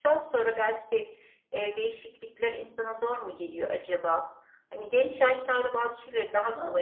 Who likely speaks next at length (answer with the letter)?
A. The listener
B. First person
A